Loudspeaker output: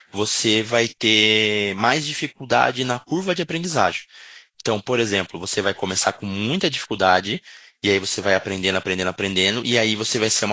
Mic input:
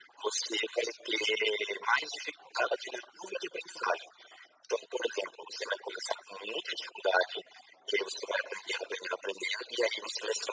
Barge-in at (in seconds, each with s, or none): none